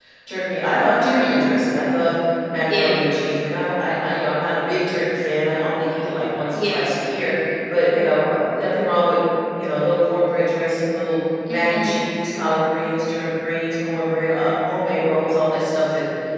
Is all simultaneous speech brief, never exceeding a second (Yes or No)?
Yes